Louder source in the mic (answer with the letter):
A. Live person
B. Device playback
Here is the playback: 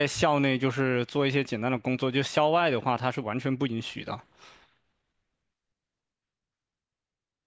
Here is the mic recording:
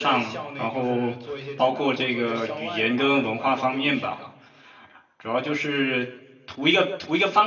A